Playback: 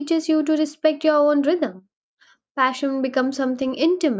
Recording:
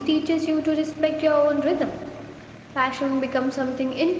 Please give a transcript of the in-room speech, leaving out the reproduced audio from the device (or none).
none